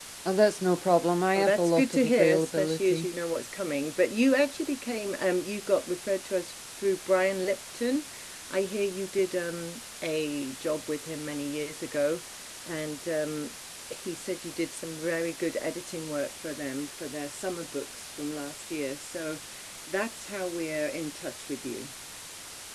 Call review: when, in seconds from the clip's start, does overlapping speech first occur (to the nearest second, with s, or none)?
1 s